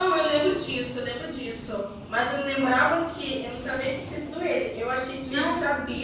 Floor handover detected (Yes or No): No